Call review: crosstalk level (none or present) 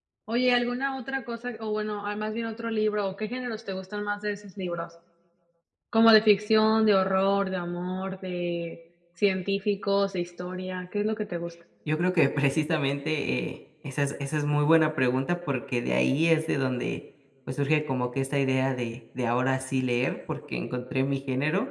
none